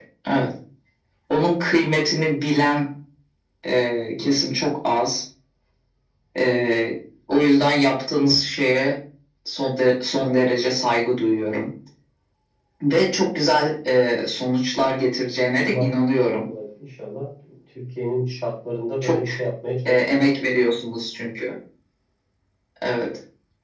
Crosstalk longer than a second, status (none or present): none